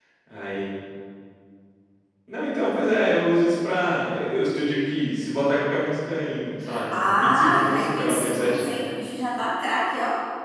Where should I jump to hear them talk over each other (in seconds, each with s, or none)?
6.9 s